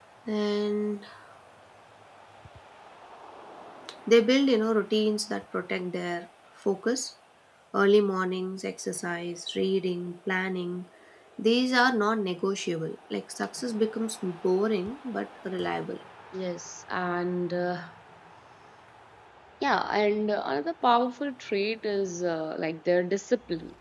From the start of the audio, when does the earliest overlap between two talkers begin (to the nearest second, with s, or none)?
none